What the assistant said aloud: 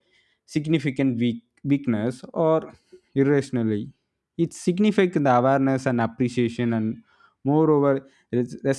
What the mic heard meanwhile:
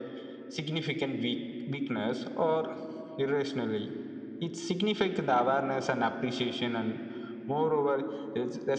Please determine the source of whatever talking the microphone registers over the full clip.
echo only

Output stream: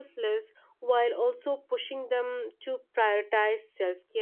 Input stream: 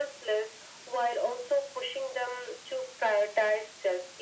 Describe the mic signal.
echo only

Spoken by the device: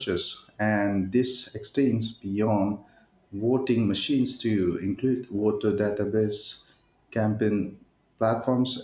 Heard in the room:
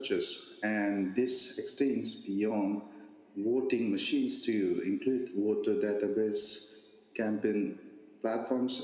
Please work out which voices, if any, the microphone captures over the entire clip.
echo only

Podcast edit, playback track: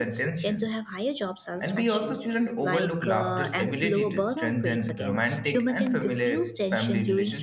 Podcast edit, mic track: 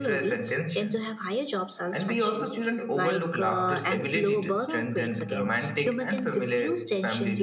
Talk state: echo only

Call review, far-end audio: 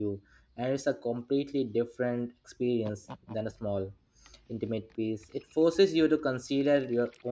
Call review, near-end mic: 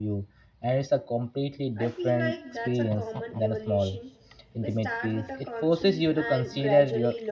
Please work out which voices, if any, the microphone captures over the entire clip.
both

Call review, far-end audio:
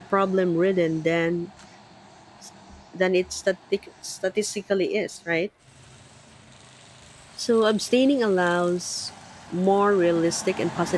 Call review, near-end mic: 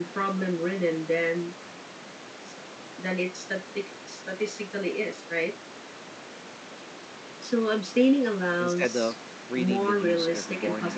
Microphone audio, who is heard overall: both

